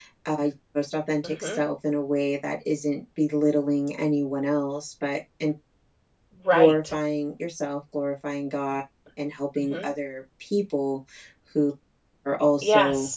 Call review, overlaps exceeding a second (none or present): none